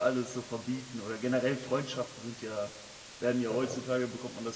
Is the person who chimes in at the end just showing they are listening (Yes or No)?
Yes